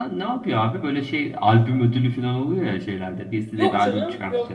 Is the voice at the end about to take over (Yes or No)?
Yes